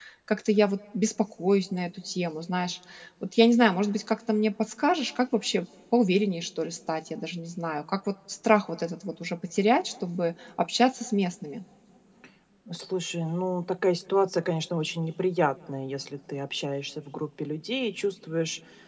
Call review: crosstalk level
none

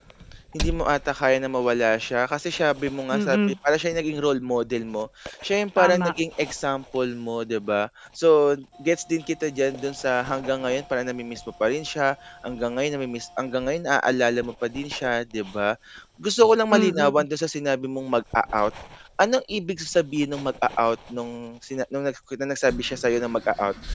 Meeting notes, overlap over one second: none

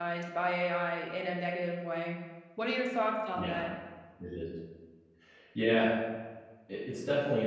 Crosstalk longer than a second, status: none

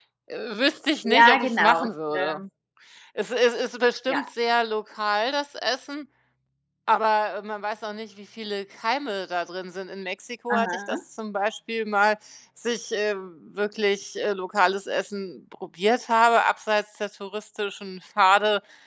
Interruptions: present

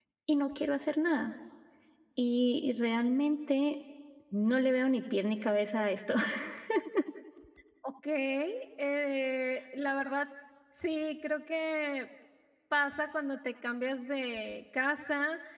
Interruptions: none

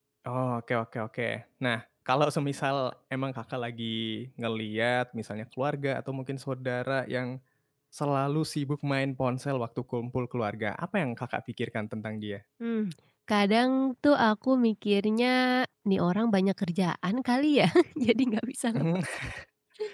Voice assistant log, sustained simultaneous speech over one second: none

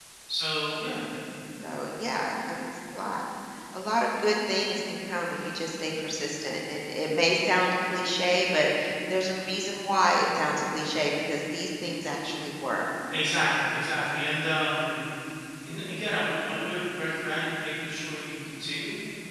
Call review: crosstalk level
none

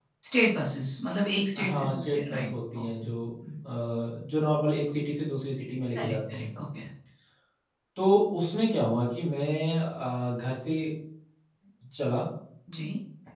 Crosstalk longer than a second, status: present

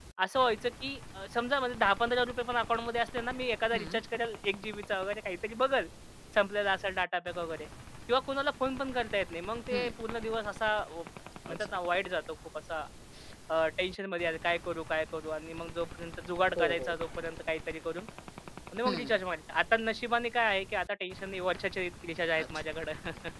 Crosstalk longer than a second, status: none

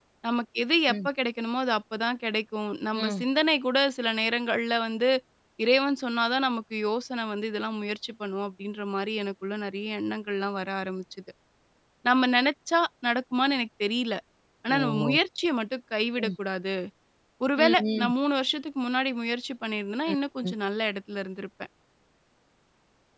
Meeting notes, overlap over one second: none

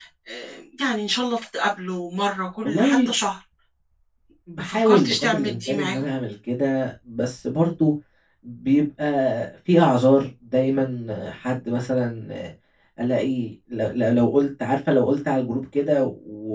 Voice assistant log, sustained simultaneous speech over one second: present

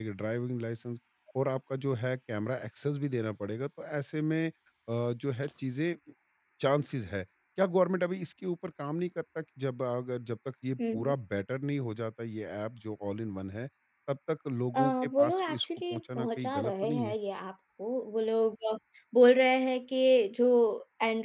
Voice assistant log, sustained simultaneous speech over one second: present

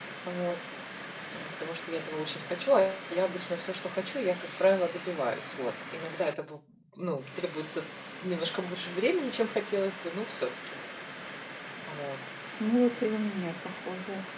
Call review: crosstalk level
none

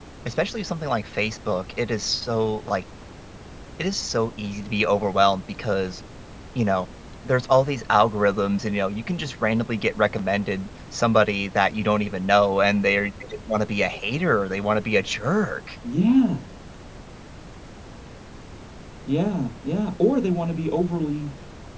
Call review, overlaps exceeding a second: none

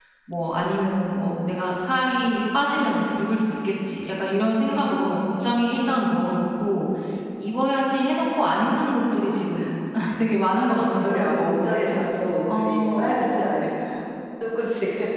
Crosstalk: present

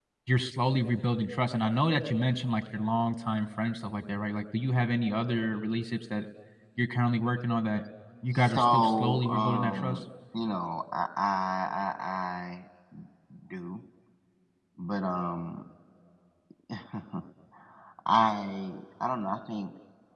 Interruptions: present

